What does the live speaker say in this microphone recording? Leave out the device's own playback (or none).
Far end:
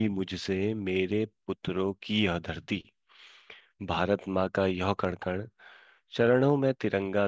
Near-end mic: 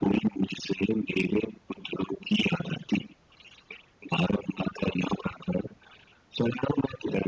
none